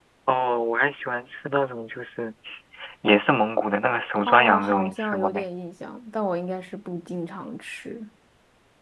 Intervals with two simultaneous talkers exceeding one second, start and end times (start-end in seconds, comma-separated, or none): 4.2-5.5